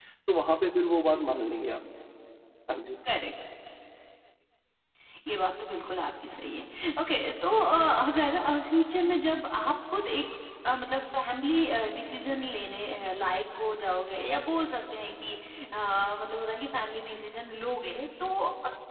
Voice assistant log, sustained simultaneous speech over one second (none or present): none